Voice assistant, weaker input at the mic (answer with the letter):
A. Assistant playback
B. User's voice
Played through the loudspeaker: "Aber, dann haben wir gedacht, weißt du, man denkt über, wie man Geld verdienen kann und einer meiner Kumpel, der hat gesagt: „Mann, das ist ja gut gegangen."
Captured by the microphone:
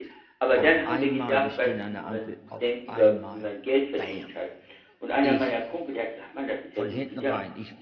B